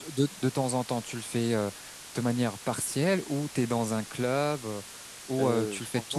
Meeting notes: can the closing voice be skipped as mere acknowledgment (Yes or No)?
No